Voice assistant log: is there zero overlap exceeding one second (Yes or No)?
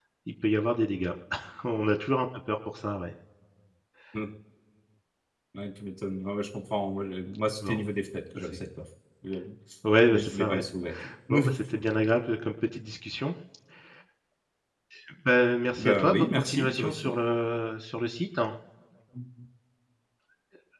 No